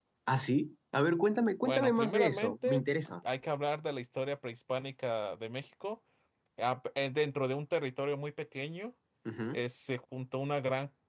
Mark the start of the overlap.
1.6 s

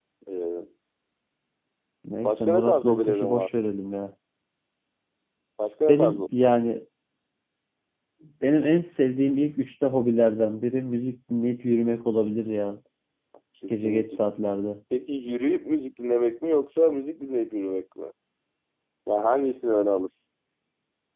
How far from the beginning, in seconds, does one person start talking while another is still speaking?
2.2 s

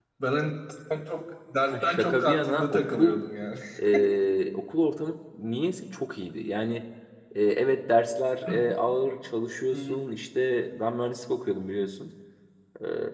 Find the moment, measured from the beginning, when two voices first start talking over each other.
1.7 s

